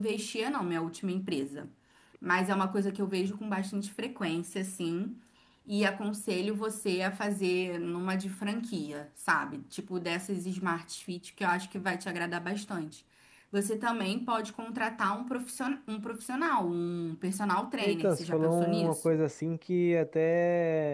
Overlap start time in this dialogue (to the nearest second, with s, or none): 18 s